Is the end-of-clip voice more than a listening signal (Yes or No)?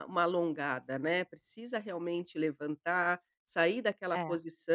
No